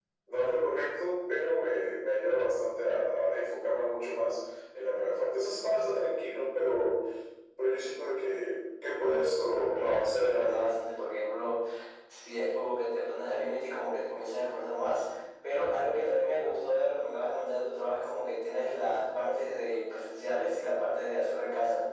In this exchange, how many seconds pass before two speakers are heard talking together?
9 s

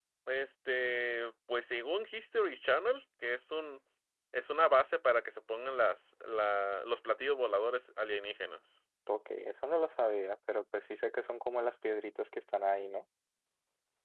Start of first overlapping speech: none

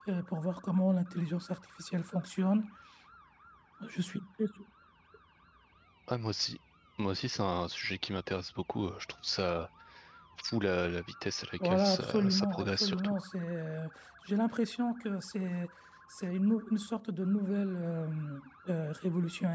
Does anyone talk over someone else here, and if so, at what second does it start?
12 s

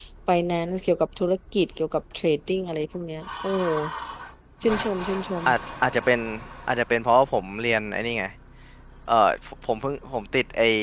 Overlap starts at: none

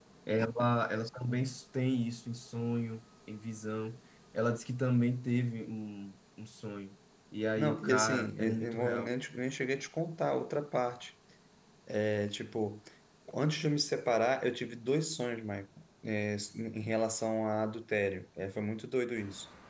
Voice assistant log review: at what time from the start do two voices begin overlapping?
8 s

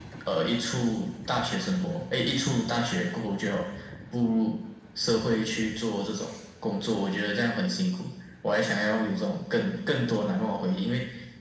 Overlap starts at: none

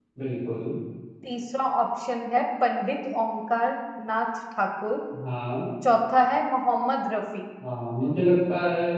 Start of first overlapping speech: none

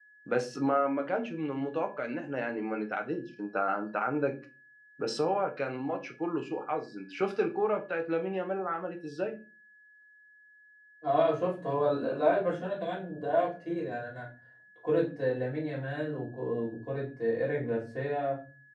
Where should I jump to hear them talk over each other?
none

